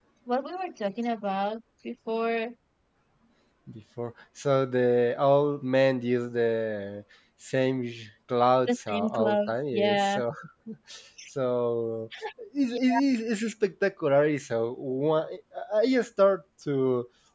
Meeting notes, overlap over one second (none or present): present